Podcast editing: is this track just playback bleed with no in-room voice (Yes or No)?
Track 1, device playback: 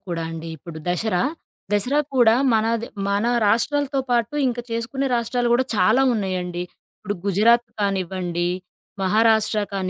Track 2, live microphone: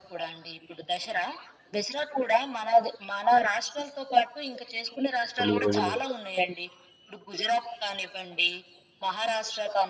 No